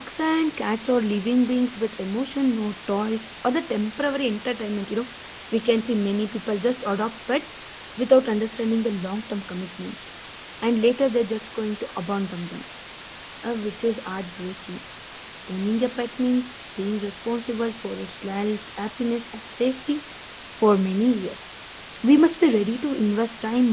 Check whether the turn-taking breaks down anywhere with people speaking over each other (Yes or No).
No